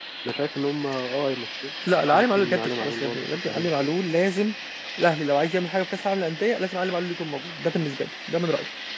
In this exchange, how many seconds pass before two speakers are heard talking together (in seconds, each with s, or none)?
2.1 s